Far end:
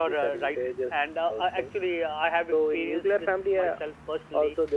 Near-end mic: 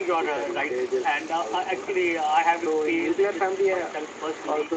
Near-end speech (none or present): none